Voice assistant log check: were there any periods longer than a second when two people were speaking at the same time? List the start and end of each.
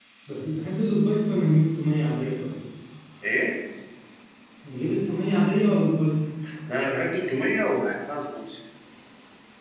none

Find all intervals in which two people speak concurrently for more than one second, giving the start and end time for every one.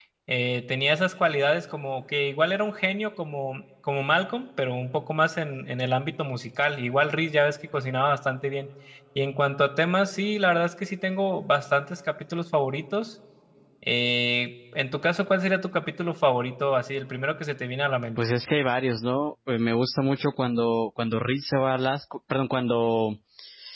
none

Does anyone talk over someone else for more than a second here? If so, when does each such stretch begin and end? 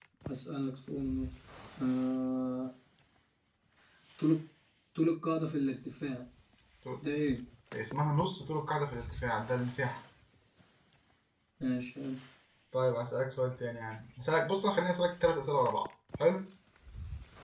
none

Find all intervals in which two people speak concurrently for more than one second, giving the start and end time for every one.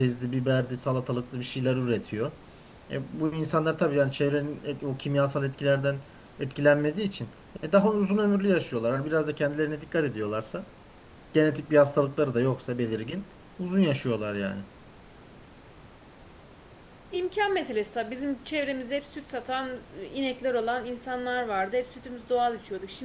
none

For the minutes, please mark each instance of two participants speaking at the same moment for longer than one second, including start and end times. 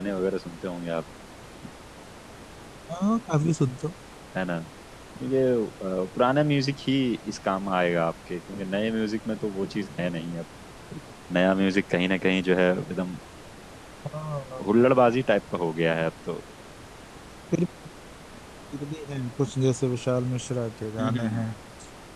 none

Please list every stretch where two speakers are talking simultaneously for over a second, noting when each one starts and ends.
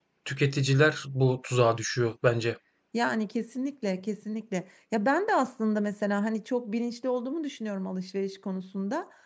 none

